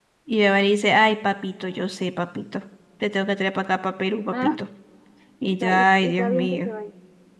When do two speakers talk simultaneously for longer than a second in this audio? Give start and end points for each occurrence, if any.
5.4-6.7

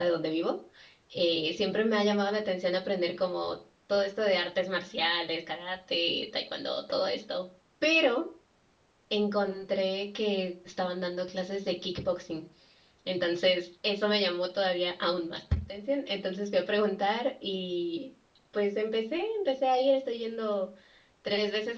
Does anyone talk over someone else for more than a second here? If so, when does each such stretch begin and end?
none

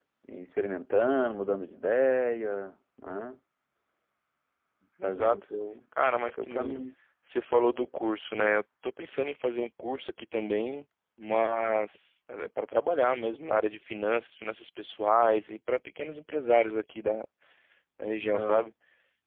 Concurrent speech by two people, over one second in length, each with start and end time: none

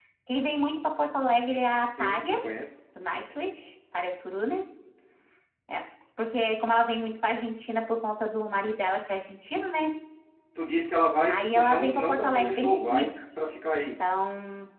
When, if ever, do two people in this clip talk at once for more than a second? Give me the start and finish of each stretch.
11.3-13.2

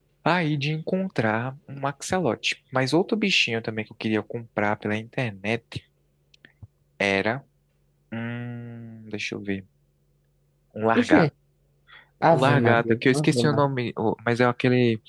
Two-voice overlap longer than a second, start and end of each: 12.3-13.7

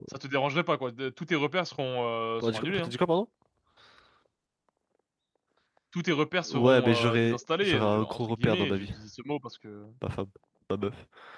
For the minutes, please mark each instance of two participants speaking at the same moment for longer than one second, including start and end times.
6.5-8.9

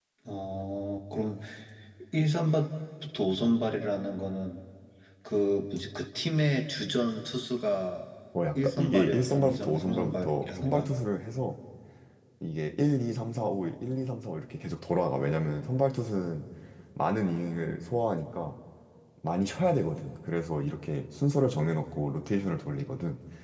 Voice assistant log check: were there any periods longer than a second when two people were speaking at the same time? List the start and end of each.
8.6-10.9

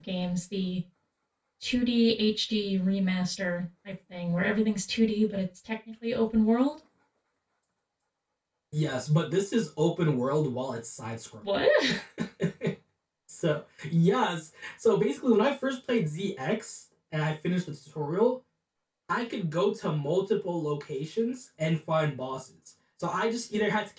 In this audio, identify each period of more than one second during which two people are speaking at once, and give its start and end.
none

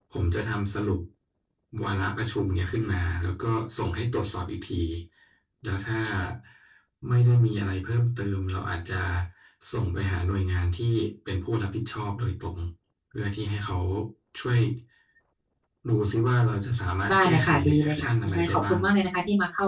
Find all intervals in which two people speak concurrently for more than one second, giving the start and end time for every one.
17.1-18.8

